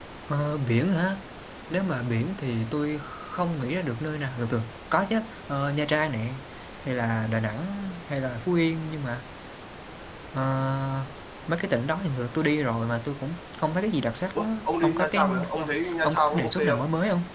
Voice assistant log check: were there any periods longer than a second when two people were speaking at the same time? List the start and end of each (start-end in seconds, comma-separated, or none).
14.4-16.8